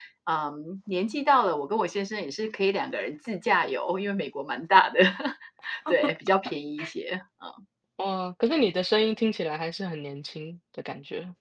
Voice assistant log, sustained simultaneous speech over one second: none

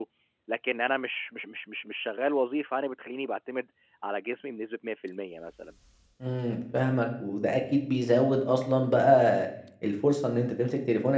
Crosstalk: none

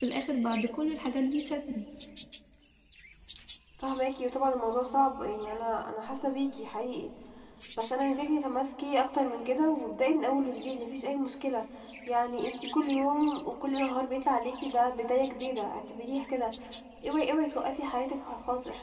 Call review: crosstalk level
none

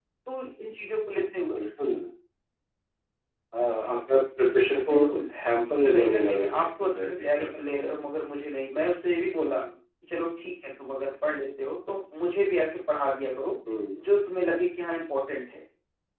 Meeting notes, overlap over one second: present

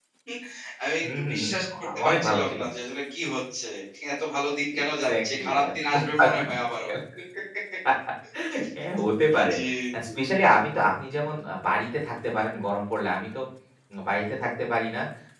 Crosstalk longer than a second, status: present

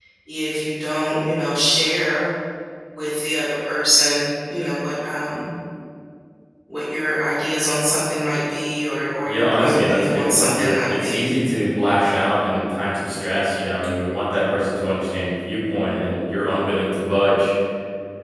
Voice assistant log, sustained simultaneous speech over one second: present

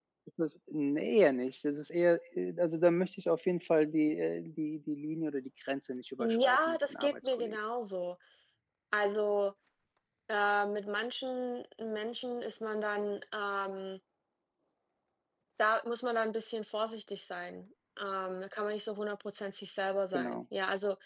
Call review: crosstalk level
present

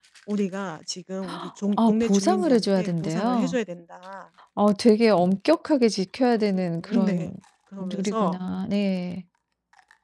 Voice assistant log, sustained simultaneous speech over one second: present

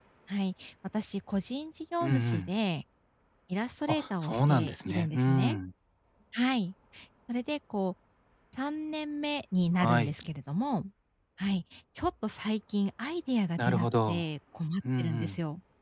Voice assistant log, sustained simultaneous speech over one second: present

